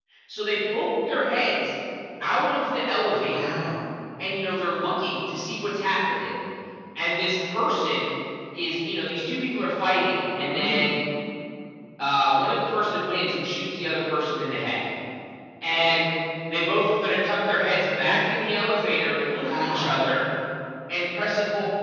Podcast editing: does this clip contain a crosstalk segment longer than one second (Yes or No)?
No